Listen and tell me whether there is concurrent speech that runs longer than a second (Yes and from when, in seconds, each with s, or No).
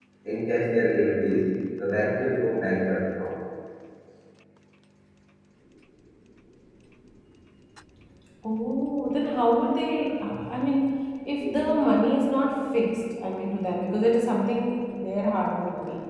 No